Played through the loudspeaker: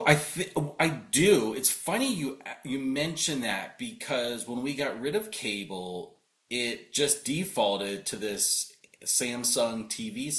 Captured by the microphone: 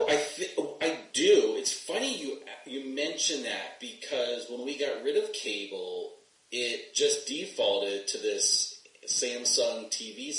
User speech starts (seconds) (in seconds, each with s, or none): none